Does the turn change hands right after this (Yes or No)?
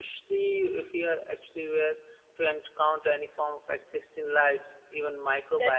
Yes